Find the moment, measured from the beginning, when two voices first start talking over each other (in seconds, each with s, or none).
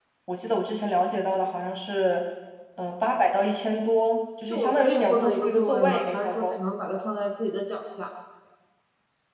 4.5 s